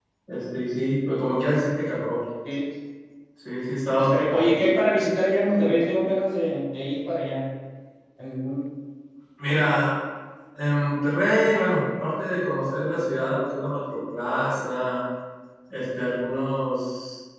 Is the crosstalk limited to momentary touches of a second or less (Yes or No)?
Yes